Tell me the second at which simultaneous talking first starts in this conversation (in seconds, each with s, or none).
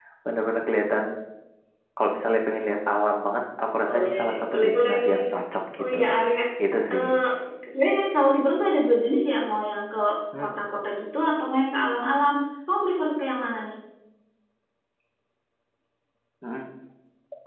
3.9 s